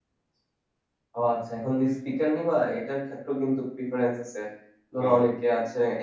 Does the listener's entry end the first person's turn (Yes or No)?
No